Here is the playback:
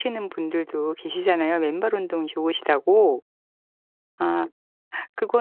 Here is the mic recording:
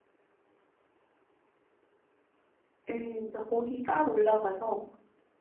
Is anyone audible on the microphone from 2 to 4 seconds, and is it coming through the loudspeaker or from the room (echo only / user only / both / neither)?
user only